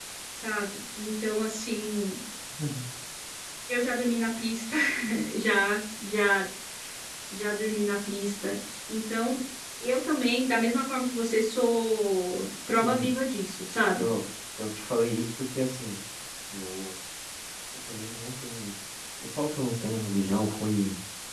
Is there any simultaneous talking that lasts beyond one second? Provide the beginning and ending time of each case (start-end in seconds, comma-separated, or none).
none